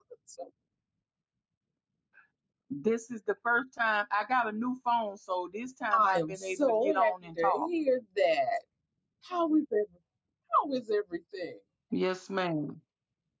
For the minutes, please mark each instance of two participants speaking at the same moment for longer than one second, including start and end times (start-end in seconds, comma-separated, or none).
5.9-7.7